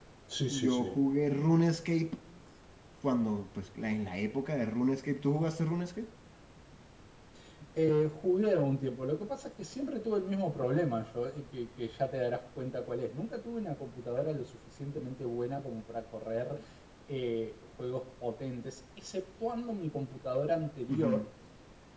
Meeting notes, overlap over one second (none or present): none